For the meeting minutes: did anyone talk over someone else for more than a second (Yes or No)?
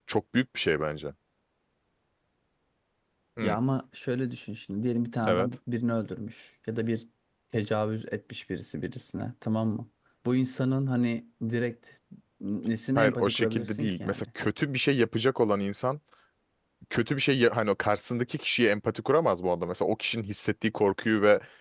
Yes